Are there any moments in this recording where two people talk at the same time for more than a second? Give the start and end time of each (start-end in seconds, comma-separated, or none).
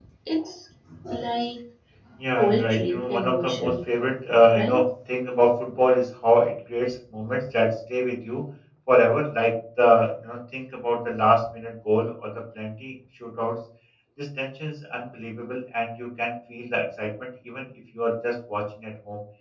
2.4-3.7